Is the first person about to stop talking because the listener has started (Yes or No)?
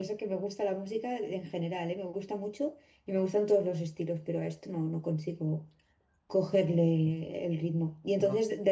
No